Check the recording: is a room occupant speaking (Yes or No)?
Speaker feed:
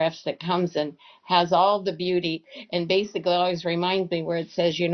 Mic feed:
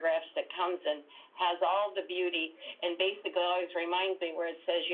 No